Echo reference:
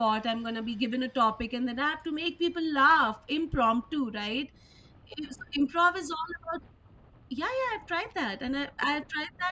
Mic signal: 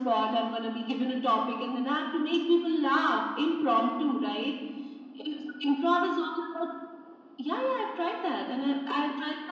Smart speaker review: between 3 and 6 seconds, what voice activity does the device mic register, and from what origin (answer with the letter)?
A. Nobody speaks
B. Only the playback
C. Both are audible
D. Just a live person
B